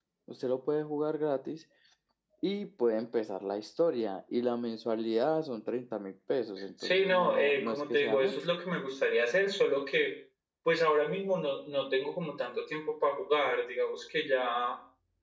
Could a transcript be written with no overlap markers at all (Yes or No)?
No